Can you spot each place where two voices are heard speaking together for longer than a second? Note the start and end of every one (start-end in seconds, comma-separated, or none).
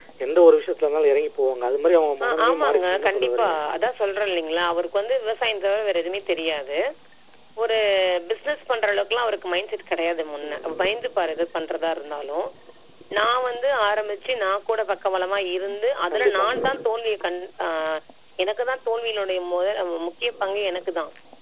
2.2-3.5